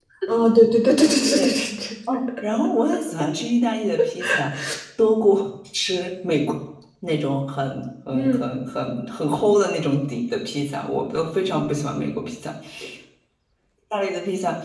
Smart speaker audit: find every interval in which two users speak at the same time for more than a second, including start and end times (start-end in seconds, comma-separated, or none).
none